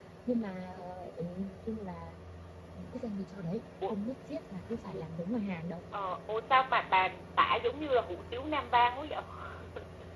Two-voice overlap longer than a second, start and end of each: none

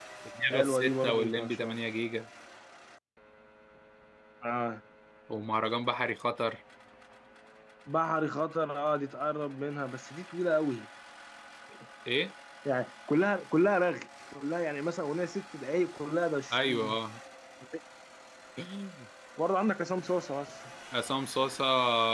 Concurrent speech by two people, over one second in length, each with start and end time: 0.5-1.8

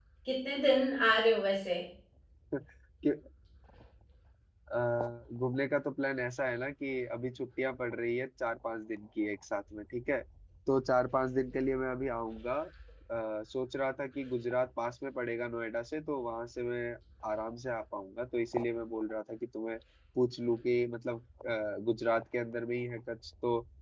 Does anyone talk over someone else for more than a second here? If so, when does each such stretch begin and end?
none

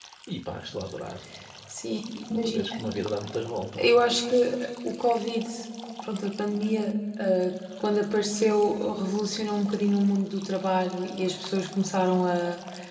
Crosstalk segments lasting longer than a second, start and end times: none

